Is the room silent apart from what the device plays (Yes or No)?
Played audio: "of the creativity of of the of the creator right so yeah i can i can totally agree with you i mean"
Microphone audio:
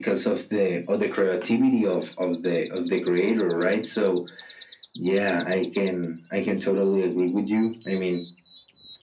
Yes